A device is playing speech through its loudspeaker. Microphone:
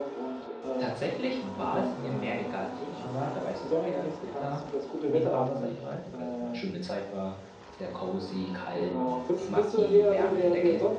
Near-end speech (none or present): present